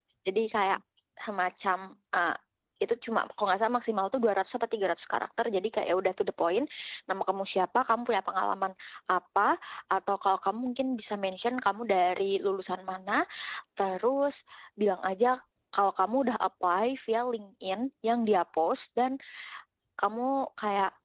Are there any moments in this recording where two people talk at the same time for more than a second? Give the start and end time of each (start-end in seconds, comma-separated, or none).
none